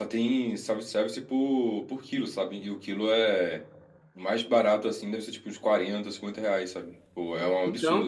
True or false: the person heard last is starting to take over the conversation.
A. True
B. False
A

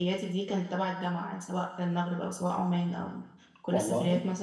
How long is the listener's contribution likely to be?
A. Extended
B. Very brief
B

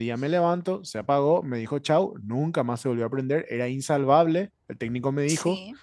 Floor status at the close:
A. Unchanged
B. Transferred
A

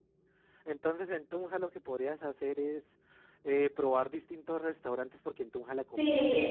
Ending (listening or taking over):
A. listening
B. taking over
B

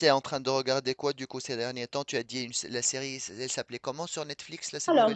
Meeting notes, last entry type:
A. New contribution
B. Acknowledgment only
A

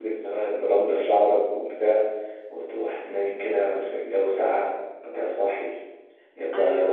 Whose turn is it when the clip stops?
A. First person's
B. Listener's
A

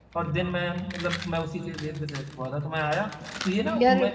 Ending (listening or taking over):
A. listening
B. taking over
A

